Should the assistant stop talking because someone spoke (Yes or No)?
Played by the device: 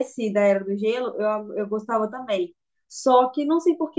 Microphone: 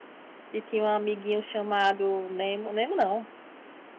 Yes